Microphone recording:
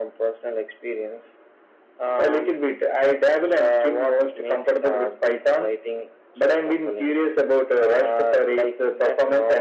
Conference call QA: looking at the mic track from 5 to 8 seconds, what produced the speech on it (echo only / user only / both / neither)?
echo only